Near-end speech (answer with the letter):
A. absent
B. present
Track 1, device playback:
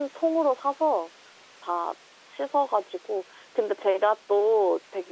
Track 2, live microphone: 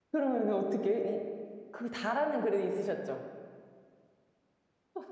B